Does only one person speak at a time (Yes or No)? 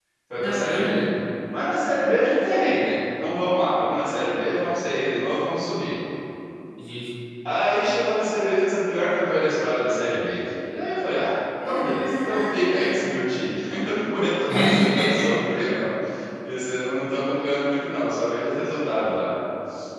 No